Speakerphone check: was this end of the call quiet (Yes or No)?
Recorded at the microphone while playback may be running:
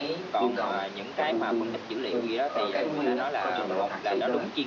No